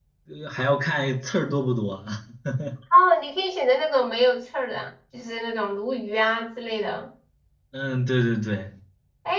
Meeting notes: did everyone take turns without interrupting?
Yes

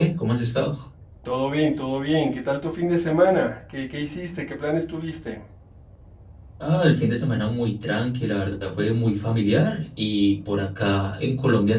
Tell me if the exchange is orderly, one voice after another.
Yes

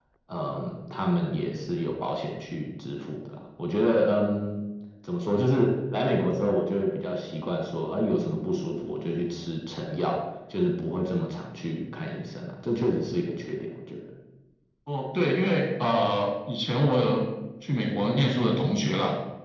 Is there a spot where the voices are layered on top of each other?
No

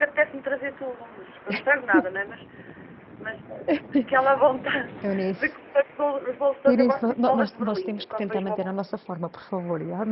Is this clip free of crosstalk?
No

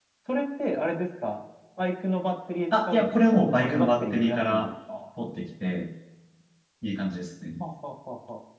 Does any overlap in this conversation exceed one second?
Yes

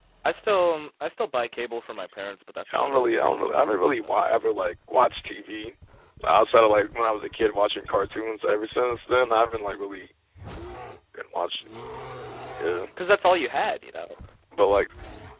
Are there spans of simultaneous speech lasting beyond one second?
No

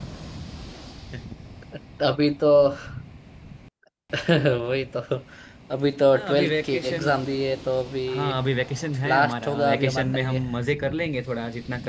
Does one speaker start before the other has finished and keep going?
Yes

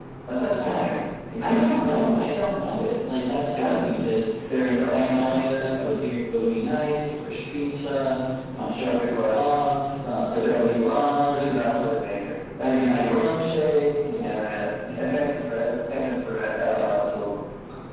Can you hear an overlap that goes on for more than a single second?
Yes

